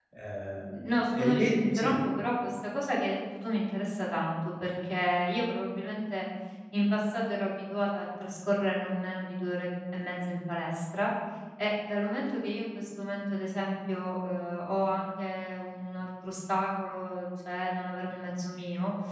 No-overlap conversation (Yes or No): No